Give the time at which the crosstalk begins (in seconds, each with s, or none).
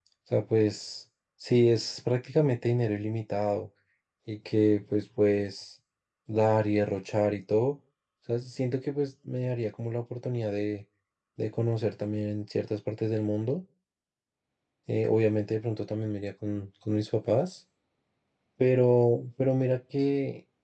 none